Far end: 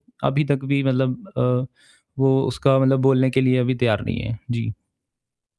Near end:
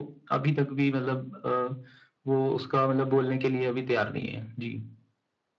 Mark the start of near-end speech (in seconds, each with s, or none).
none